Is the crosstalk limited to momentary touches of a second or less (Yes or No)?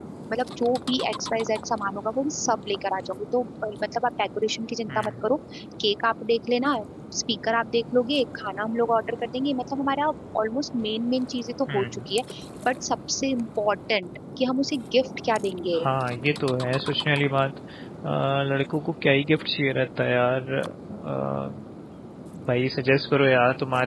Yes